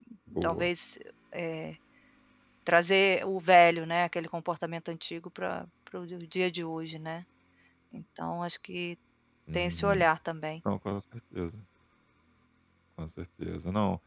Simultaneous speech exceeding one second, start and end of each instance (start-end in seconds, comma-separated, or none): none